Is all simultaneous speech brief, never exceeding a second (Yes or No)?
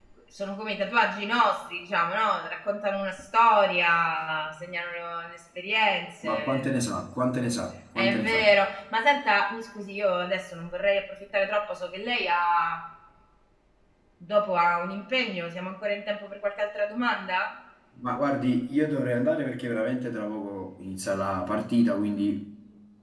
Yes